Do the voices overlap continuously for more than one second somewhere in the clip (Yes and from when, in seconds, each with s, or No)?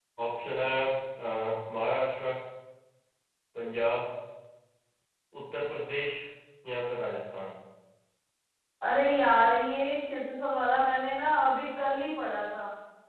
No